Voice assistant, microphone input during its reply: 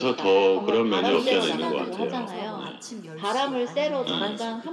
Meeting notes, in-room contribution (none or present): present